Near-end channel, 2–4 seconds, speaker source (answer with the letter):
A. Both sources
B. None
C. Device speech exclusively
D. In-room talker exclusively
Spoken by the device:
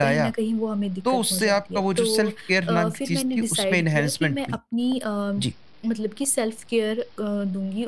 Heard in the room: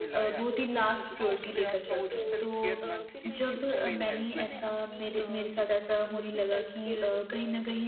A